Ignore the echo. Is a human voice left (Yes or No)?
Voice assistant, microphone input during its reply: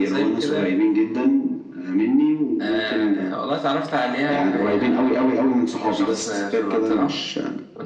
No